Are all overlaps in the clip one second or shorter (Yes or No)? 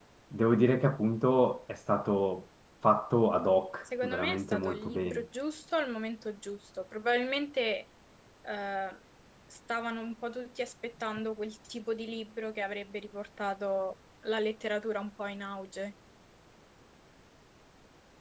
No